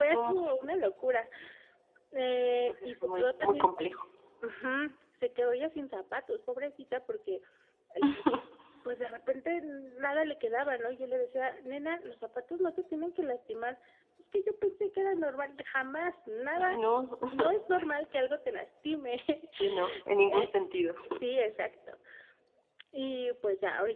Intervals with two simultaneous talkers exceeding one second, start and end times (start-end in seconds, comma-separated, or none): 2.6-4.0